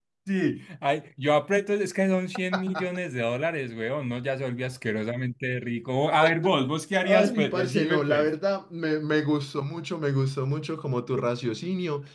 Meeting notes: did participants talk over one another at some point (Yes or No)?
Yes